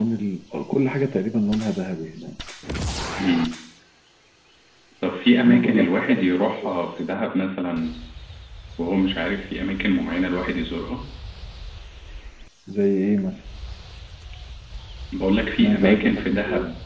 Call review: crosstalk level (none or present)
present